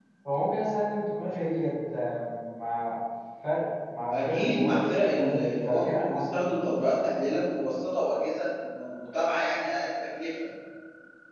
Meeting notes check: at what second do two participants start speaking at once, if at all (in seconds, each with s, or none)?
4.1 s